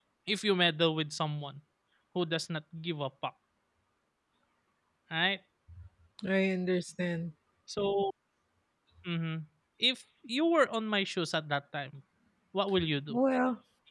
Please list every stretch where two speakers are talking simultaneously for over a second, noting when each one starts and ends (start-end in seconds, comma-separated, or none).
none